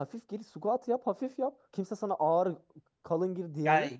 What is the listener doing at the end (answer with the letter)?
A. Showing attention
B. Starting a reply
B